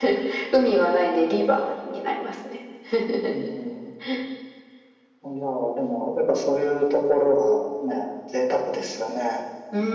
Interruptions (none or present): none